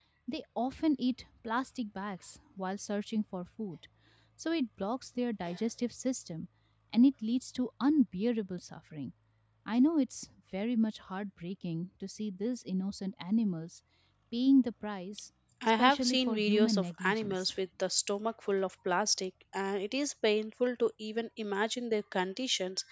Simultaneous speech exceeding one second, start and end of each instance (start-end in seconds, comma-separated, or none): 15.8-17.5